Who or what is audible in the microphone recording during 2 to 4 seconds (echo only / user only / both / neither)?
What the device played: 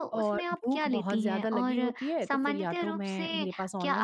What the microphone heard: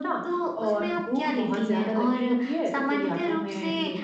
echo only